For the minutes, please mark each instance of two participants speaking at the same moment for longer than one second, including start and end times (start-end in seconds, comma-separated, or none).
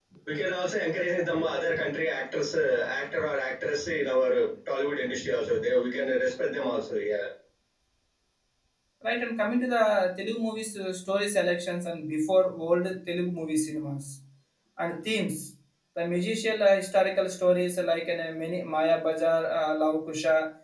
none